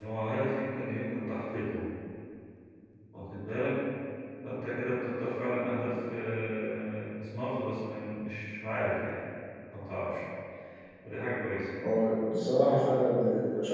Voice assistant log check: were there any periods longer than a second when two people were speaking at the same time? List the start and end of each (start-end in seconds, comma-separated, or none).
none